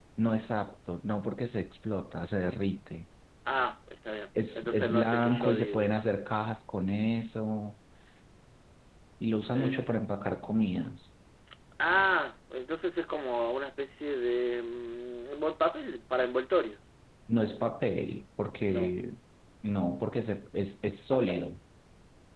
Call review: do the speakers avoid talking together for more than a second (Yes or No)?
No